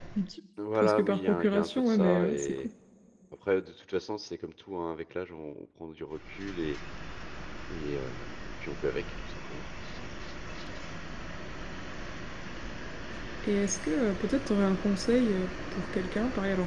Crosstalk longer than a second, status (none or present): present